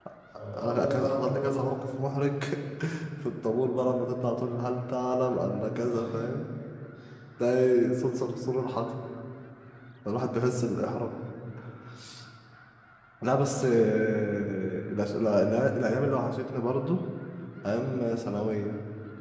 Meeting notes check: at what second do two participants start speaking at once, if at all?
1 s

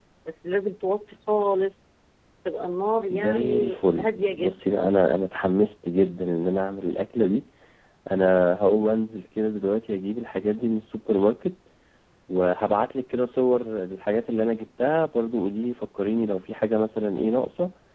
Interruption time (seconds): 3 s

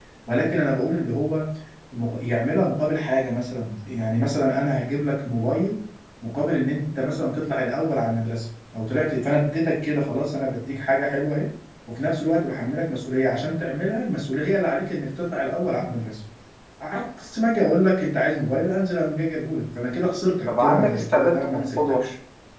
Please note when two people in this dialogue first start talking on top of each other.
20 s

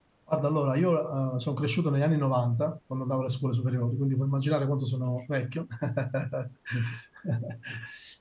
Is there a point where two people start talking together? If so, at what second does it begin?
none

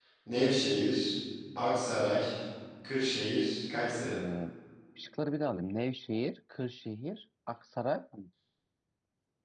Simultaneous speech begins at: none

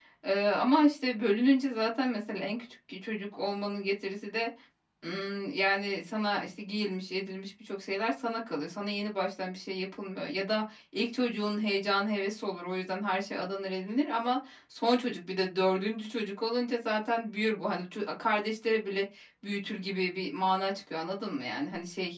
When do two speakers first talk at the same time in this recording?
none

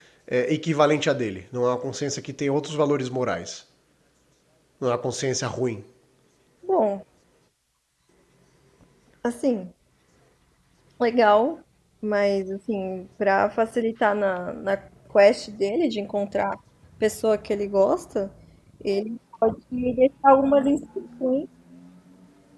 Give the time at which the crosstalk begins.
none

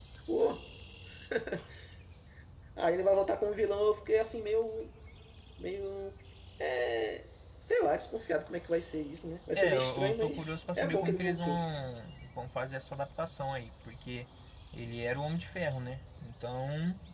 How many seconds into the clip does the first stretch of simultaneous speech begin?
10 s

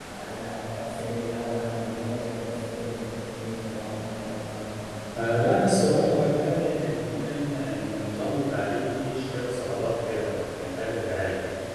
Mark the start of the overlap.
none

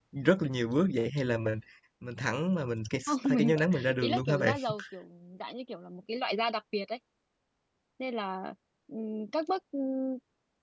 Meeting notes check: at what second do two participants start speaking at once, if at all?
3 s

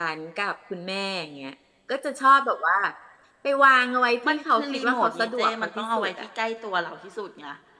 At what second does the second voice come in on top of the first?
4 s

